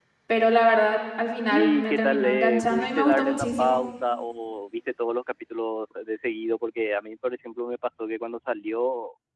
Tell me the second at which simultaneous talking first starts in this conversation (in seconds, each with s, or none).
1.5 s